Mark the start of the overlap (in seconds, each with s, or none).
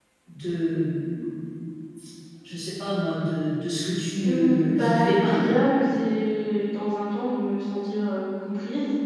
4.2 s